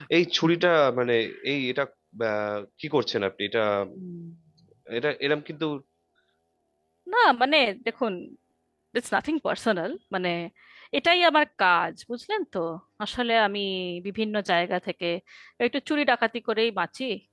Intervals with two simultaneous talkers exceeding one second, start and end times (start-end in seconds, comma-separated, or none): none